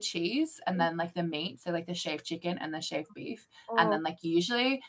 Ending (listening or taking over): listening